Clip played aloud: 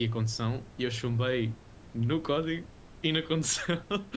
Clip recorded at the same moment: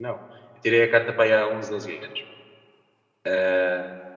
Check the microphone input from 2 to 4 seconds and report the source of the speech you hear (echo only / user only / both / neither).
user only